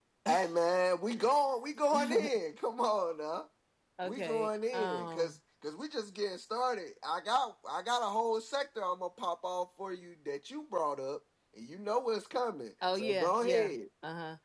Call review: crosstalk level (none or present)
present